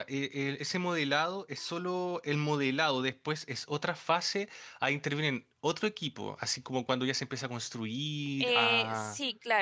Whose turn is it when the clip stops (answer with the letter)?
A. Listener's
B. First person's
A